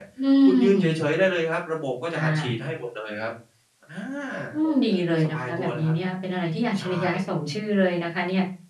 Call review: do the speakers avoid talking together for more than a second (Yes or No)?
No